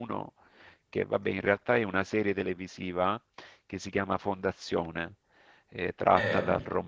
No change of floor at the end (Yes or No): Yes